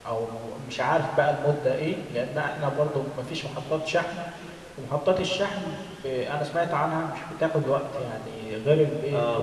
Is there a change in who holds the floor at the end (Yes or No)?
Yes